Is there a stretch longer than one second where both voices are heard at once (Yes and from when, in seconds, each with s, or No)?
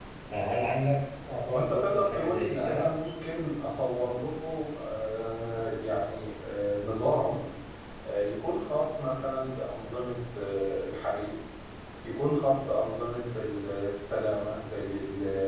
Yes, from 1.5 s